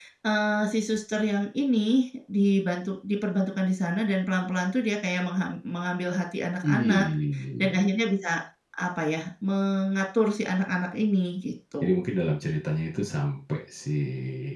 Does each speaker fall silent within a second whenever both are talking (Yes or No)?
Yes